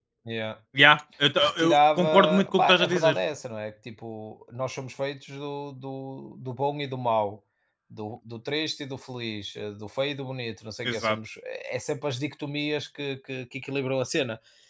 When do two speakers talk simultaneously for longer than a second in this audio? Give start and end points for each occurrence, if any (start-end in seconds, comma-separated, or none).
1.4-3.2